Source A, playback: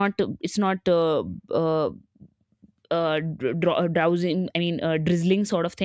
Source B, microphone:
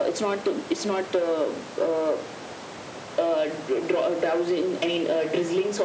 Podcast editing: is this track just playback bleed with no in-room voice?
Yes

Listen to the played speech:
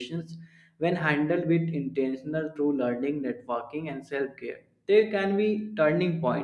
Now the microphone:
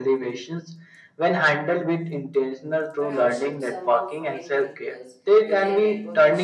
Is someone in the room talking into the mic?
Yes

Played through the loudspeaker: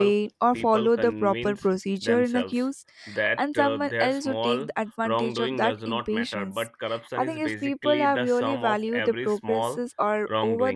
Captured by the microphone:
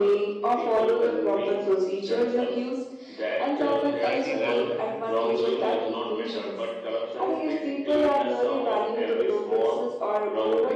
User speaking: Yes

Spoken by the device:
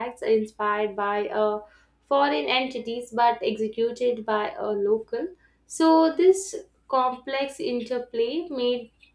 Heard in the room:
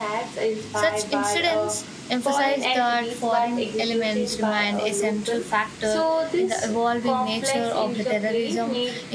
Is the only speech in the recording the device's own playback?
No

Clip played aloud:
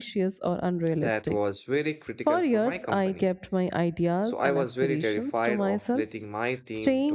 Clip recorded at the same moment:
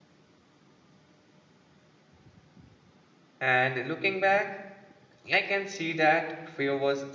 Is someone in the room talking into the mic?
Yes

